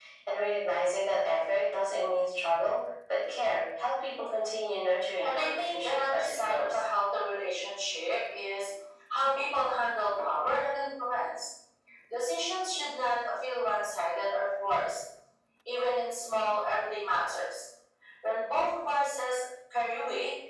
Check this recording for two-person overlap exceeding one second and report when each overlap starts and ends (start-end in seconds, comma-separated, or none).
5.2-6.8